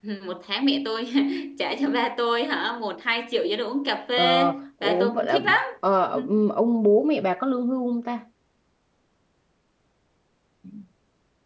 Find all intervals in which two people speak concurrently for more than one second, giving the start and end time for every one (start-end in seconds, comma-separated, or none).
4.2-5.6